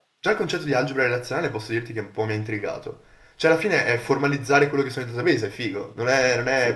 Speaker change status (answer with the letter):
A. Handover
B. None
A